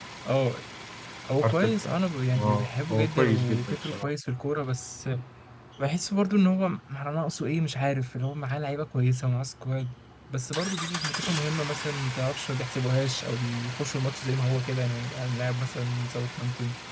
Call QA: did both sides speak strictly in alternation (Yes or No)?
No